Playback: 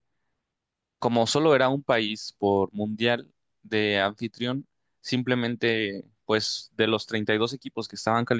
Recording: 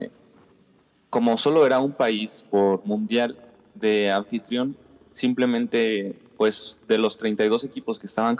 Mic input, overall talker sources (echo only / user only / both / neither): echo only